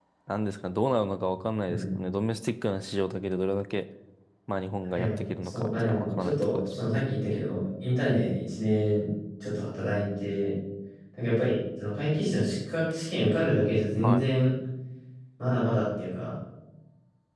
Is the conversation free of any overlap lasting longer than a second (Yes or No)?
No